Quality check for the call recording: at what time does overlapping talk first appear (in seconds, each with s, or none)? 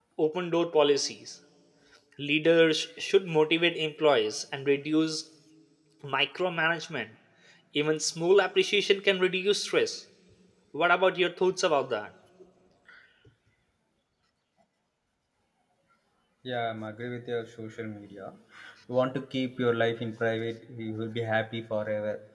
none